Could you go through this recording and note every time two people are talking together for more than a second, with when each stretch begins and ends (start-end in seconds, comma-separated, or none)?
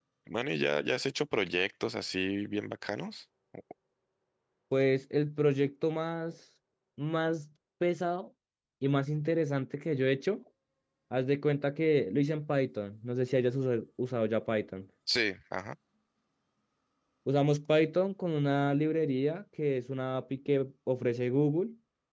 none